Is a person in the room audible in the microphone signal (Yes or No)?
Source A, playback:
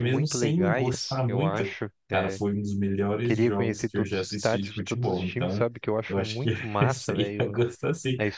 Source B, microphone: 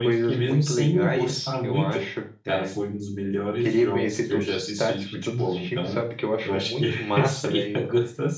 No